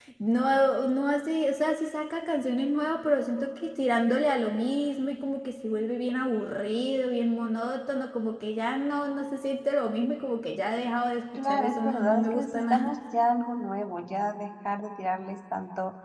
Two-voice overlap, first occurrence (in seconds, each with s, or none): 11.3 s